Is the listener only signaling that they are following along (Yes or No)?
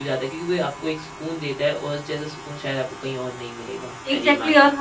No